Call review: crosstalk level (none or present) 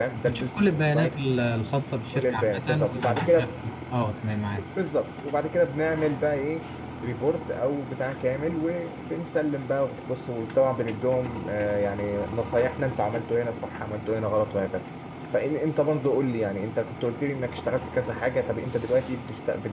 present